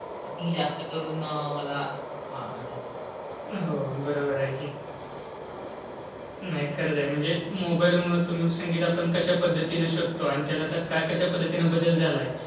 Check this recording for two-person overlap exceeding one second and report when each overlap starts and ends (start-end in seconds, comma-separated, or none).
none